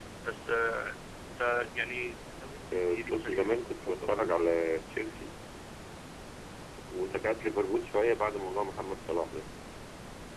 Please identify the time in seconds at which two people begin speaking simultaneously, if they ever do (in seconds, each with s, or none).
2.7 s